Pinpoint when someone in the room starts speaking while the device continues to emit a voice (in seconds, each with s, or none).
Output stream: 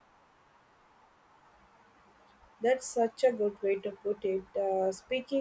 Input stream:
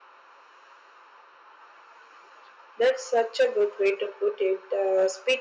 none